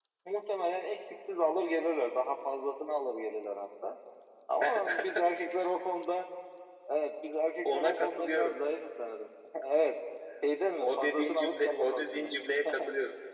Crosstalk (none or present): present